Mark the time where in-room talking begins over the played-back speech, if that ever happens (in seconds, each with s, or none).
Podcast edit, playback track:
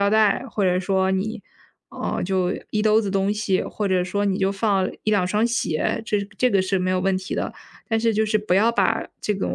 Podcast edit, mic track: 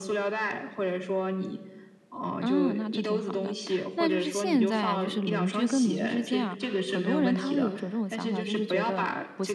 2.4 s